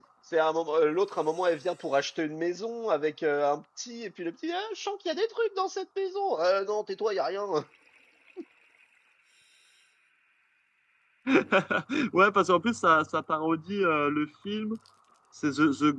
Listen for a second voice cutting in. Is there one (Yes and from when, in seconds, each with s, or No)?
No